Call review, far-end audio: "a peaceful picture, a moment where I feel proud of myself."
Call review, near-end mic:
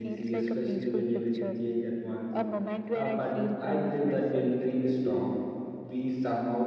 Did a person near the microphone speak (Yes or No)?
Yes